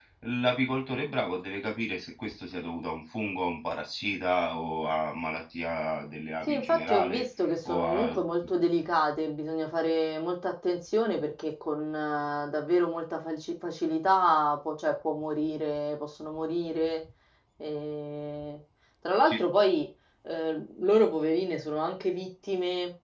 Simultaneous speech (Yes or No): Yes